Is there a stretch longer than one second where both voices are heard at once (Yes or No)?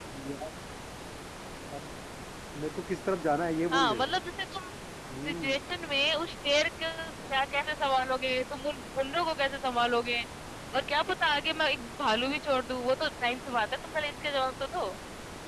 No